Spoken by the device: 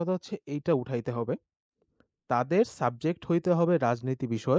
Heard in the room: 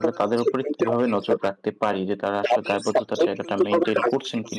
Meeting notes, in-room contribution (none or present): present